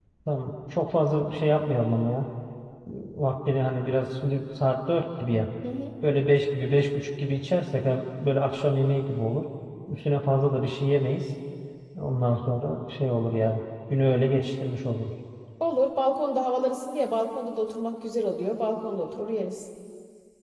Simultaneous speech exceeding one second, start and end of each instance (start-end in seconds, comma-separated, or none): none